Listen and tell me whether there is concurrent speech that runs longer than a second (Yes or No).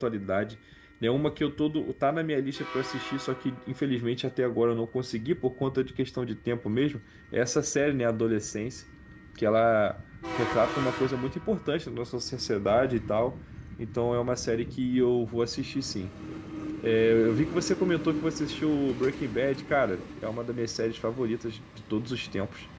No